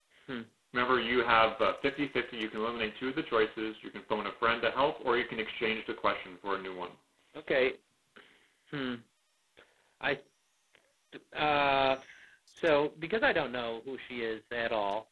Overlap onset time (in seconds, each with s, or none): none